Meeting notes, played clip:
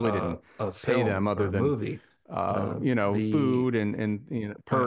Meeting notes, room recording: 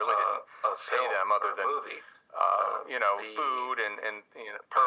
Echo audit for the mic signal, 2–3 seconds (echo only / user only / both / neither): echo only